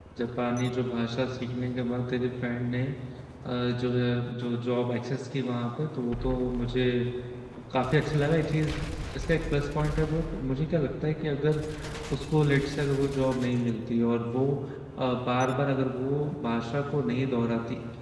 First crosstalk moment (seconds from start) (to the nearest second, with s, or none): none